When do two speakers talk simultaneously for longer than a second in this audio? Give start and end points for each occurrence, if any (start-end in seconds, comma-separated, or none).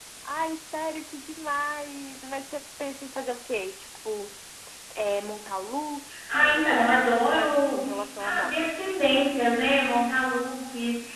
6.3-7.8